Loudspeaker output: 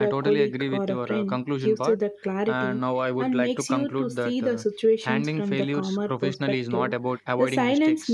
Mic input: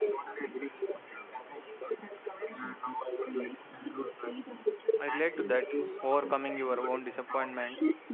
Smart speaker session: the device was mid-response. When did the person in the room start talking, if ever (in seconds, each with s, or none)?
5.0 s